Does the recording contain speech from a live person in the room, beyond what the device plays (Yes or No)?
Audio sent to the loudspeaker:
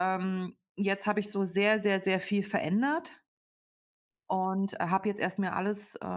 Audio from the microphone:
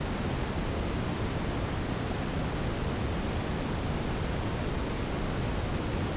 No